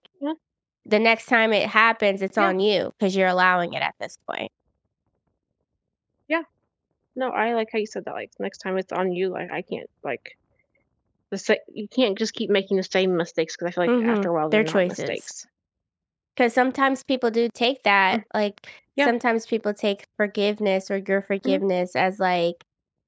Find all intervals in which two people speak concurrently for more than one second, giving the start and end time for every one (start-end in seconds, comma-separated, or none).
13.9-15.2